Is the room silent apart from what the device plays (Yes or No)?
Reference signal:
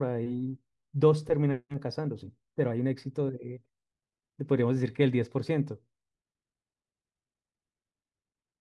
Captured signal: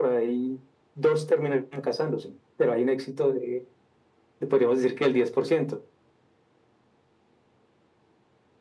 Yes